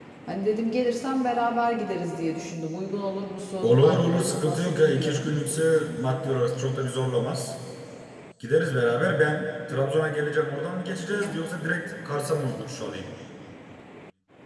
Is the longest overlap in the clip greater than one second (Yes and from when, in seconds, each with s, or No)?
Yes, from 3.6 s